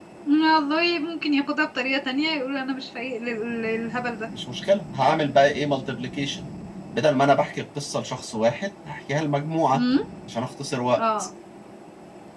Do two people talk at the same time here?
No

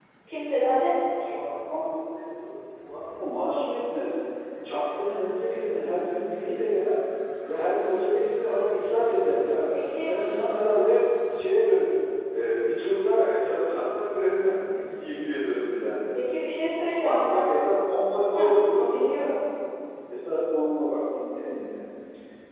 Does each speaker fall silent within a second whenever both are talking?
Yes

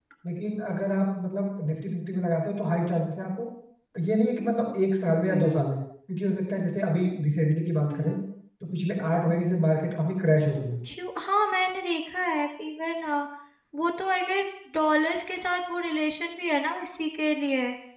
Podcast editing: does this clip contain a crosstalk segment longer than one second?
No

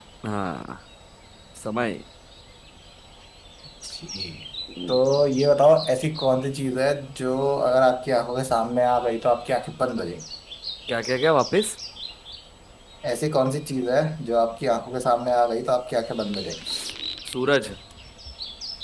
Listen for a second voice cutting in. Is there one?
No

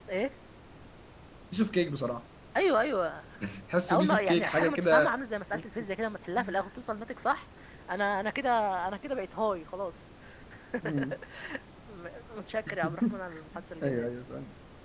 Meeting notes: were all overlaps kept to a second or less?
No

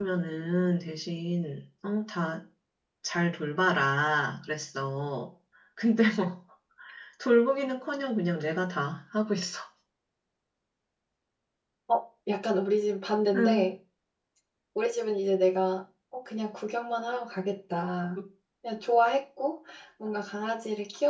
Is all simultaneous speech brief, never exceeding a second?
Yes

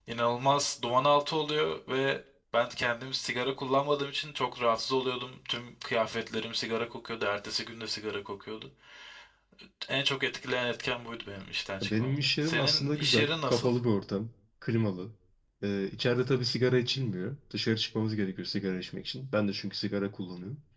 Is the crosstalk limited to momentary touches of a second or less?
No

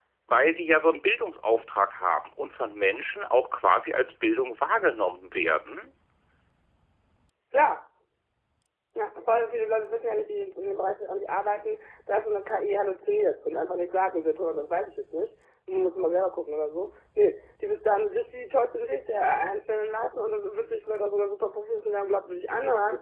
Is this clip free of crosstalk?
Yes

